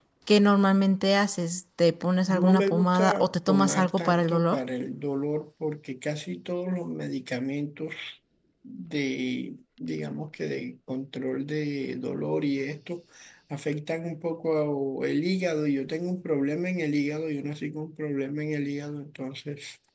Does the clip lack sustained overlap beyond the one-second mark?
No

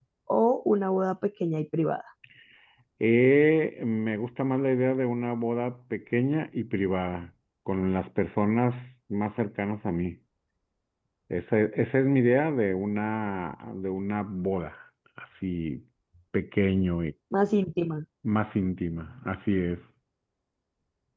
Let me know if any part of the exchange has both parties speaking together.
No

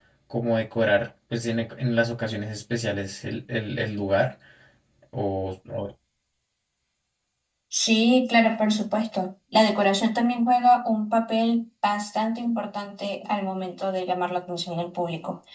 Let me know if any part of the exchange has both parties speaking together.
No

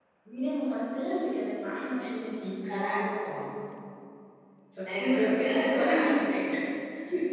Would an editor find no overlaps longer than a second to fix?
No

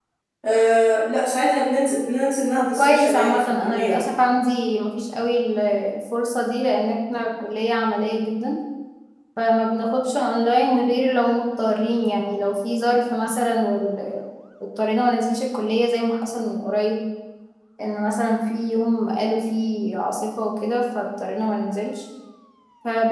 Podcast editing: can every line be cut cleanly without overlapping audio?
No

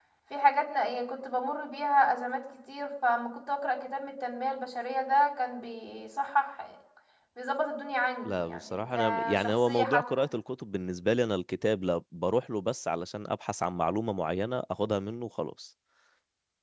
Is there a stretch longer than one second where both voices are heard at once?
Yes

